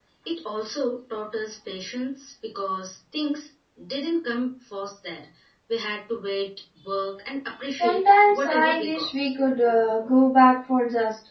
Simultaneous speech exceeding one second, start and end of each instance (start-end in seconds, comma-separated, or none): 7.7-9.1